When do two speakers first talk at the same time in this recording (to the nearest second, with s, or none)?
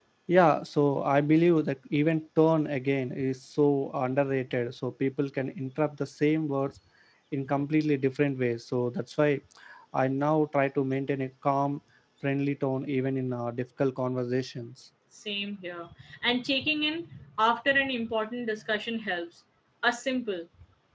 none